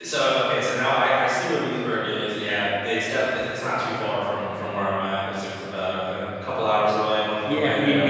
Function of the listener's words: taking over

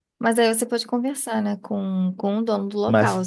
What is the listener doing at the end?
taking over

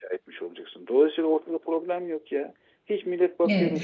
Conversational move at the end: taking over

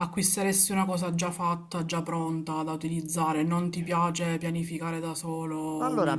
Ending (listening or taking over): taking over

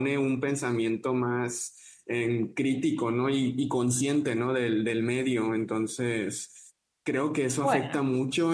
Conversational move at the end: listening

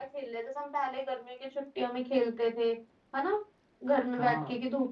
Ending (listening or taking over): listening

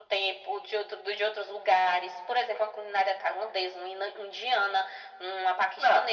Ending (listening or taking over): taking over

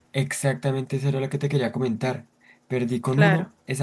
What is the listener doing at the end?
listening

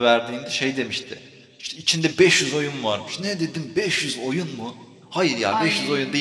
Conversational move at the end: listening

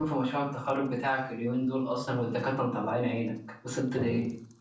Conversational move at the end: taking over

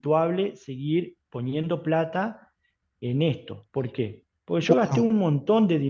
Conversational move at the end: listening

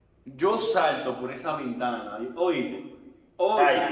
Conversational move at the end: listening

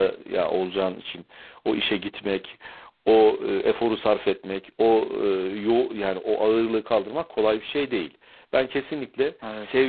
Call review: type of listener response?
listening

